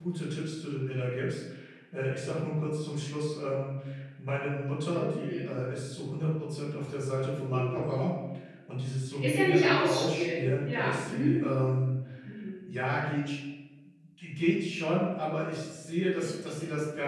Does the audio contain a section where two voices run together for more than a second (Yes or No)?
Yes